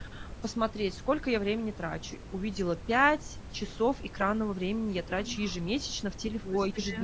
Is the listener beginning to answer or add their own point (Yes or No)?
No